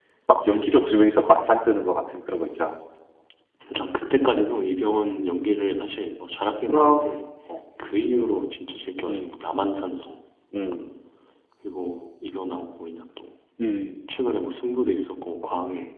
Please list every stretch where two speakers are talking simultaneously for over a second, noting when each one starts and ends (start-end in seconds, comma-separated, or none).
none